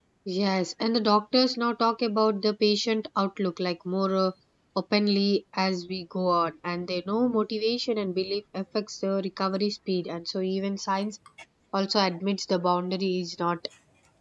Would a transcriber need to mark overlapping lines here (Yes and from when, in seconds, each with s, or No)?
No